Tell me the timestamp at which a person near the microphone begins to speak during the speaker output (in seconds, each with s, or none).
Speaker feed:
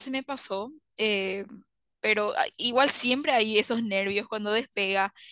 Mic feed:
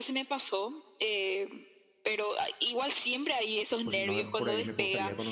3.8 s